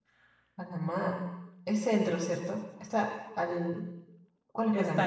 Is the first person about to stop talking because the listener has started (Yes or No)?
Yes